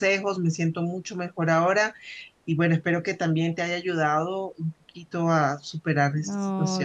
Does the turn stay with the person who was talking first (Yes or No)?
No